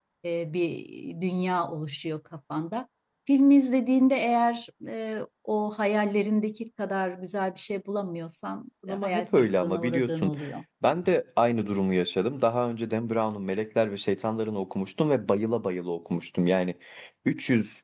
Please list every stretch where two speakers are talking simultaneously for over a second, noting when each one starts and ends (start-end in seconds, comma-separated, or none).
8.9-10.3